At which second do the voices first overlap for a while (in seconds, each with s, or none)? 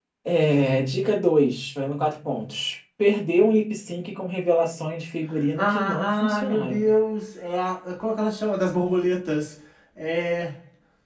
5.6 s